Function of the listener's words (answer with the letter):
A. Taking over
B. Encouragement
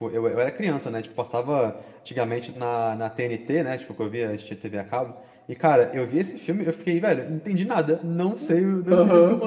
B